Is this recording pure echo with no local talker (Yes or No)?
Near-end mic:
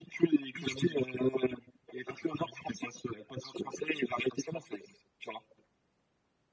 Yes